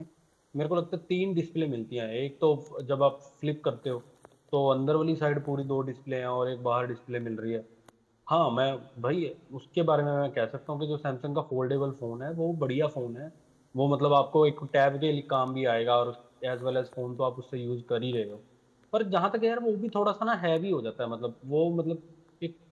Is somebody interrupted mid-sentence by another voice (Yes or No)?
No